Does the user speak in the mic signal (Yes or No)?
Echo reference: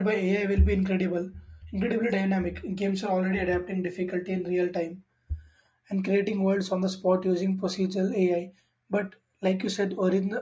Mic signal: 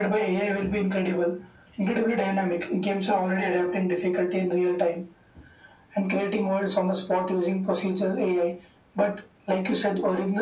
No